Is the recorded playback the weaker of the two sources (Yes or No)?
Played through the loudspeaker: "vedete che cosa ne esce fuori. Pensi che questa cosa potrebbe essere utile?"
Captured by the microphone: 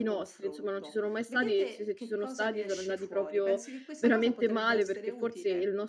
Yes